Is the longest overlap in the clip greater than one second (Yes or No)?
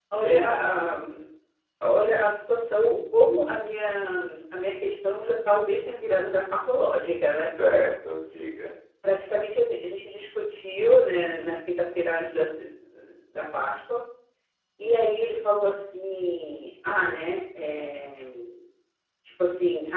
No